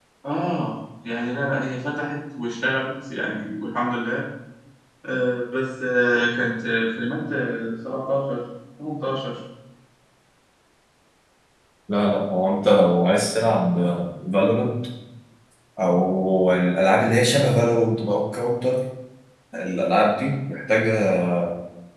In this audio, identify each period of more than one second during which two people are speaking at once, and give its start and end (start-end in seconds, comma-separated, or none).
none